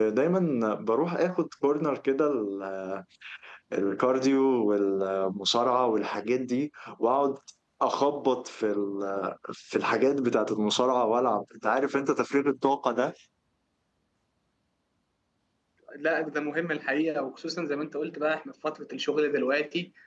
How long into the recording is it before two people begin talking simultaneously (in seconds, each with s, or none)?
none